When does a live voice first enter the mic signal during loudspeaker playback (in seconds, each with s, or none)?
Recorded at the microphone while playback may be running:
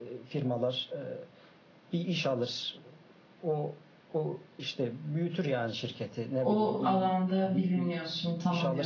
6.4 s